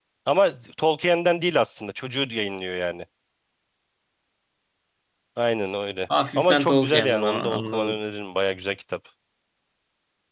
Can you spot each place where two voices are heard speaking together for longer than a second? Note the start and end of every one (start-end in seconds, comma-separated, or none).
6.4-7.9